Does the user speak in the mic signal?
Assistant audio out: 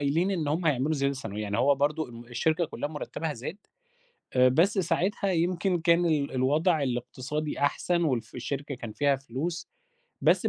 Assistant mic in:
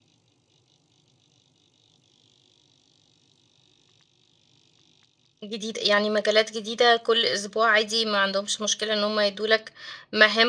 Yes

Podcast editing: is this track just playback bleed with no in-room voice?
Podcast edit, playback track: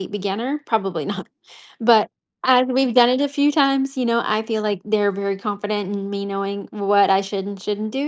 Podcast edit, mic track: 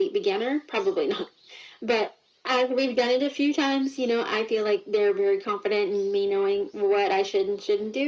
Yes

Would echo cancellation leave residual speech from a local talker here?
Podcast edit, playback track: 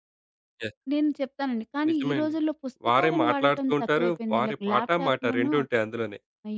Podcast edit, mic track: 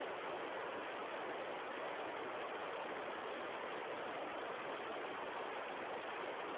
No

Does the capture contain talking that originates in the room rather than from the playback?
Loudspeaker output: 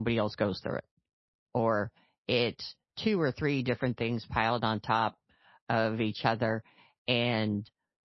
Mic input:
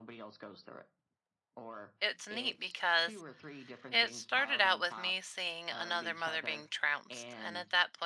Yes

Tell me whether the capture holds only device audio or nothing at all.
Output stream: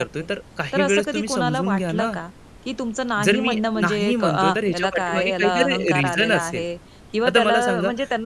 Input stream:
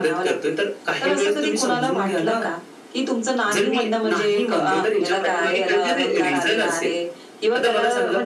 Yes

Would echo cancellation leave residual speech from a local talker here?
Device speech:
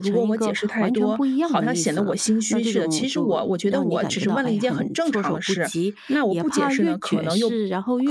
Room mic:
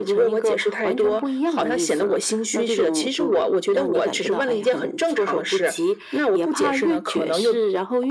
No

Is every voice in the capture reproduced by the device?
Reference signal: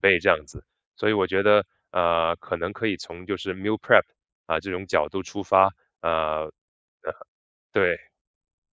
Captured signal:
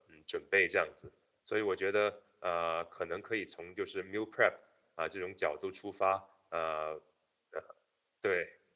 Yes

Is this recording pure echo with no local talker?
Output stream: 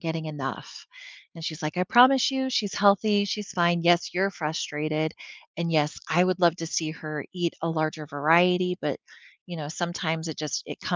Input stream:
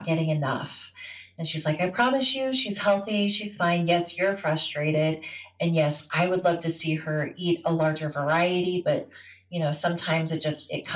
Yes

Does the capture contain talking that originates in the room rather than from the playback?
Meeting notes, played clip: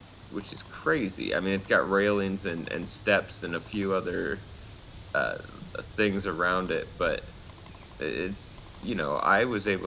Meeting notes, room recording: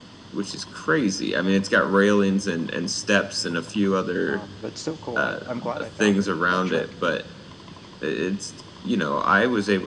Yes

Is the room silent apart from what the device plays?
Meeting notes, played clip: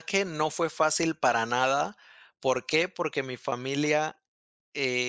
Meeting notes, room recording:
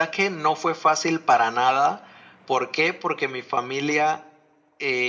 Yes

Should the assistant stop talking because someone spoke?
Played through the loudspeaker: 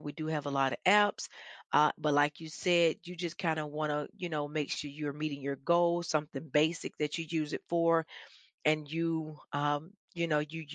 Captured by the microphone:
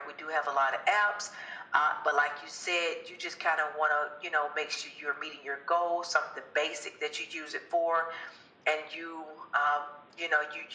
No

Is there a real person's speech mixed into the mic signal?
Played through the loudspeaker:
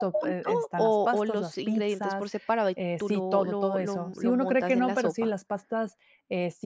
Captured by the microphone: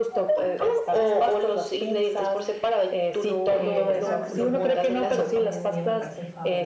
Yes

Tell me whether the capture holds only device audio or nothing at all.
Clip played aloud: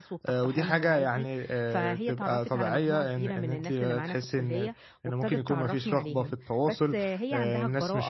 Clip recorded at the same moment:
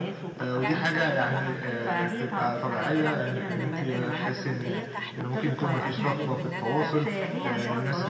No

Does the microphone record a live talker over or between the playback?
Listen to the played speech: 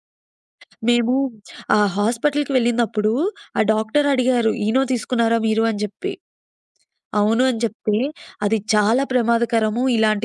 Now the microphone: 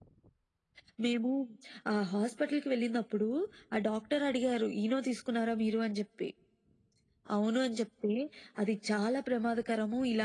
No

